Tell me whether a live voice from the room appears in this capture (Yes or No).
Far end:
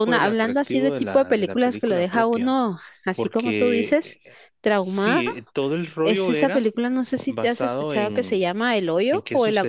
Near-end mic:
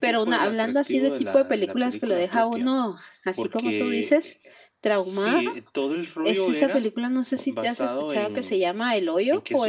No